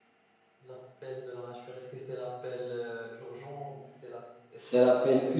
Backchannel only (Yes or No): No